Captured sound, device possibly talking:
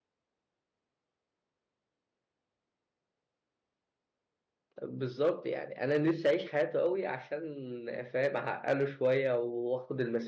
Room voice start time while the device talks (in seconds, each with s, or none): 4.8 s